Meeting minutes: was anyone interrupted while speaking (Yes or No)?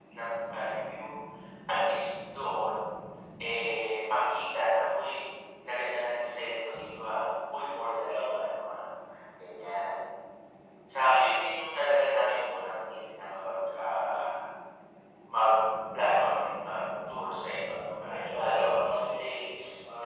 Yes